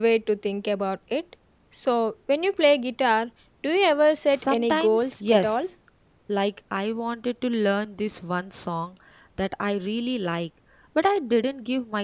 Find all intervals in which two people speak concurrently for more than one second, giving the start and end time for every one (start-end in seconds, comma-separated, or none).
4.3-5.7